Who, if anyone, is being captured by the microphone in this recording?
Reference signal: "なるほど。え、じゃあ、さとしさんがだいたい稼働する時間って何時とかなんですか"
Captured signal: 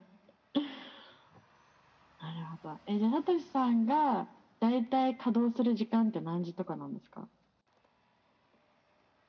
echo only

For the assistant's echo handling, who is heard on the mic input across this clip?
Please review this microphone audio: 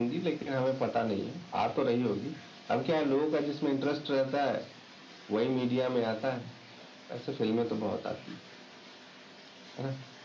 echo only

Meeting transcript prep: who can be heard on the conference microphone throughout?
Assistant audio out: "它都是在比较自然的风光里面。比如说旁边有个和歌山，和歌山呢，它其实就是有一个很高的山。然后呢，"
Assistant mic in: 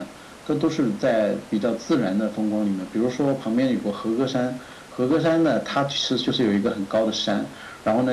echo only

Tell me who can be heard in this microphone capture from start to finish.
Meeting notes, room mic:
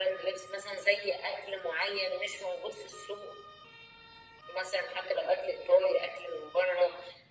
echo only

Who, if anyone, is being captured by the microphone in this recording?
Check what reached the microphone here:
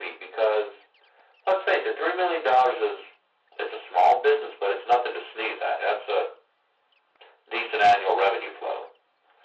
echo only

